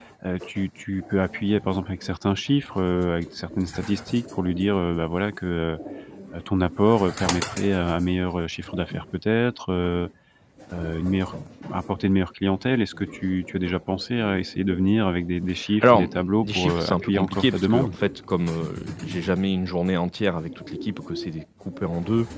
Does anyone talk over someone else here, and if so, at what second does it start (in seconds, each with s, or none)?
15.6 s